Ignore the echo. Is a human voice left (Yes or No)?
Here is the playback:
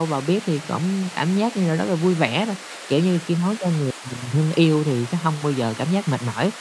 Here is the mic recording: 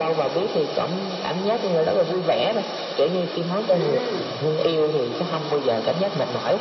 Yes